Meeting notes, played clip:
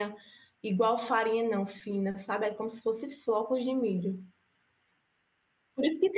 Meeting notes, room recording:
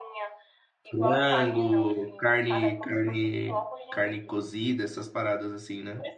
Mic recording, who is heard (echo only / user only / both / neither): both